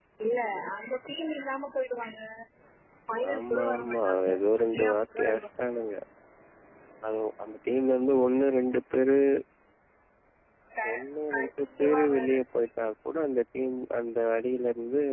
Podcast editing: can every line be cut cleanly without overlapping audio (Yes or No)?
No